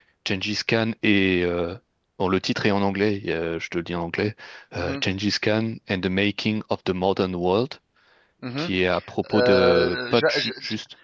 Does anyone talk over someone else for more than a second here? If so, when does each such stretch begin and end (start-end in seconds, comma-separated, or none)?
9.3-10.5